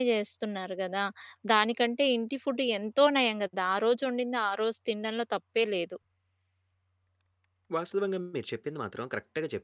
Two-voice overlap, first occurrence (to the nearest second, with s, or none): none